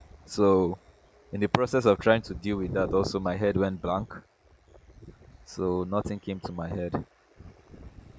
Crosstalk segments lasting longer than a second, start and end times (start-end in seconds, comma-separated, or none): none